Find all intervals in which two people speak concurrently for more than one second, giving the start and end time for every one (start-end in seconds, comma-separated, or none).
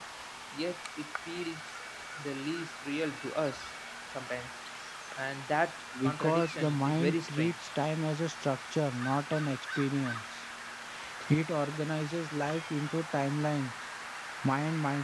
6.0-7.5